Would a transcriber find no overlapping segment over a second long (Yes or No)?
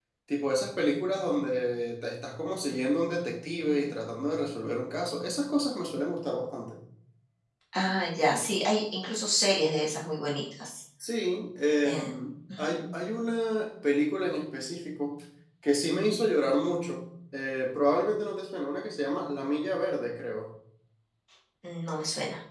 Yes